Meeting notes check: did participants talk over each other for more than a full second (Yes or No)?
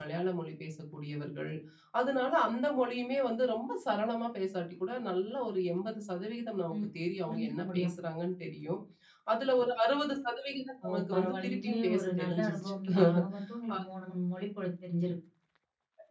Yes